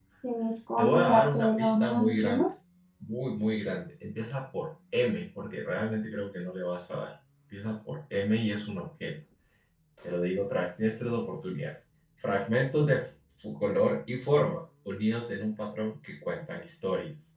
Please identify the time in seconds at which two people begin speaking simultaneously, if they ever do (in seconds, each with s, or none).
0.8 s